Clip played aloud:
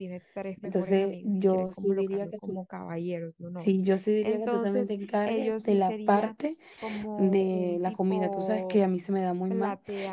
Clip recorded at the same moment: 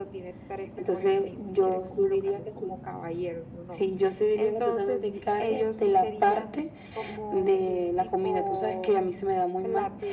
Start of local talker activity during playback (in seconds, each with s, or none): none